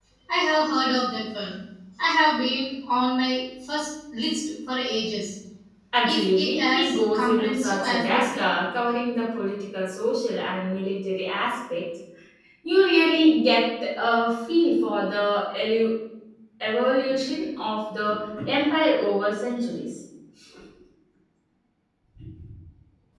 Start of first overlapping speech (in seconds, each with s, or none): 6.0 s